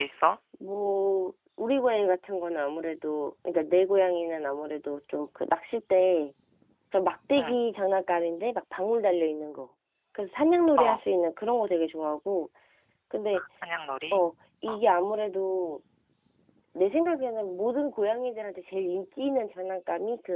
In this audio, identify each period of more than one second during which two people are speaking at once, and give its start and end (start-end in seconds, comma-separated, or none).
none